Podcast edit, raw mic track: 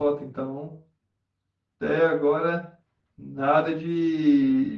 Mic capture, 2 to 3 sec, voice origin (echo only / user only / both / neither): user only